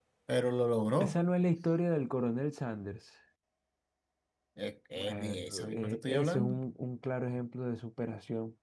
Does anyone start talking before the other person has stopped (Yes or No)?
Yes